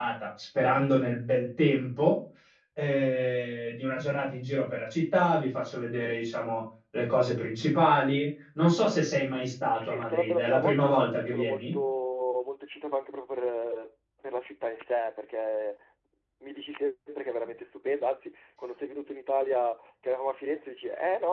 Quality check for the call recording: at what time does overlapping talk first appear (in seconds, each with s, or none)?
9.7 s